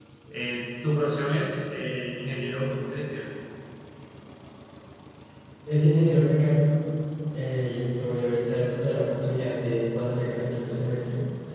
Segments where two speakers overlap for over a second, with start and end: none

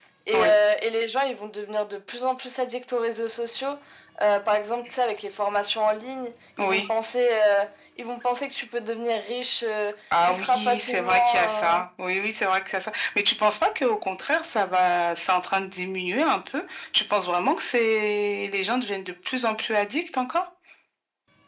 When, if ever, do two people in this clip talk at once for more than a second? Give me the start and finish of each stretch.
10.3-11.8

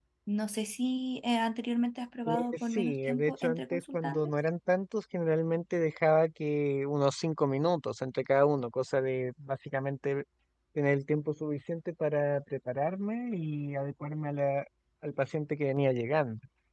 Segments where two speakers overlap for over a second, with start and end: 2.2-4.3

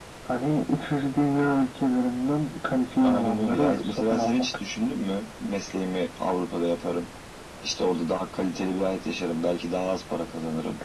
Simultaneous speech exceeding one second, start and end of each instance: 3.0-4.4

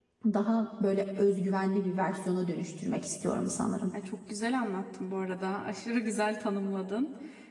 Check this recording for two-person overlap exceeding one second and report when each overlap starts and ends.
none

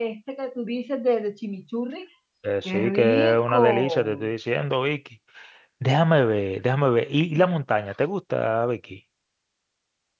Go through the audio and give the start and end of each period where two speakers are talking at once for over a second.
2.6-4.3

